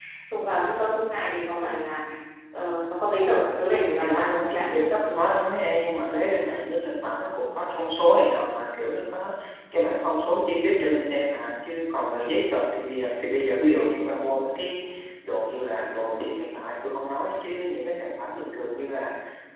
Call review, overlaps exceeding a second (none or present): present